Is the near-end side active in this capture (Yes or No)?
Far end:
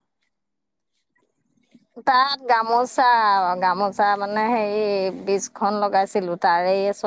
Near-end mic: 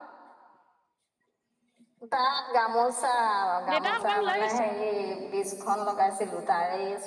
Yes